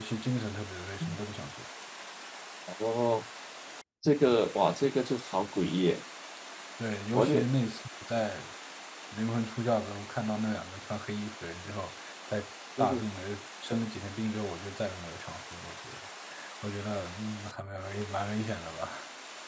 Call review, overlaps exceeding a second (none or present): none